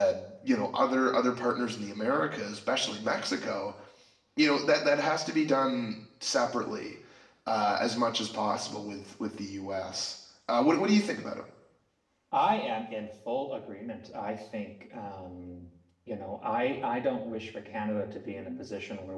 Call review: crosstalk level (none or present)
none